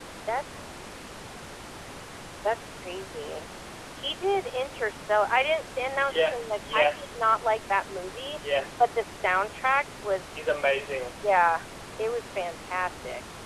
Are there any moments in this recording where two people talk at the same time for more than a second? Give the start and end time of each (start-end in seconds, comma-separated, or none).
5.8-7.2